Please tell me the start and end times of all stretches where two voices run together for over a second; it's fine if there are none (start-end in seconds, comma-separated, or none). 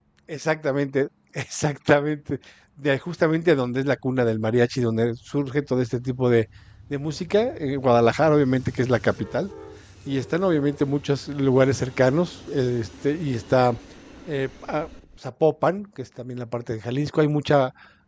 none